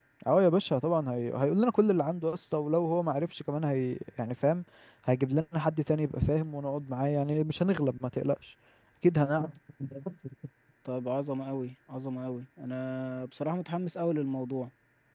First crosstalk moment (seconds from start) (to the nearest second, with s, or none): none